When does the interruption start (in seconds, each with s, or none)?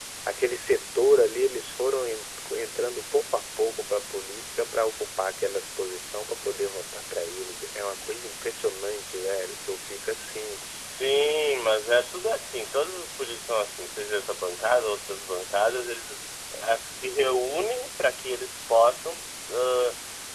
none